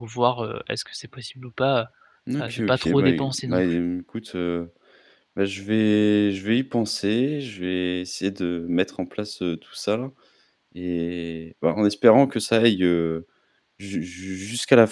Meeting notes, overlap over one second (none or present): present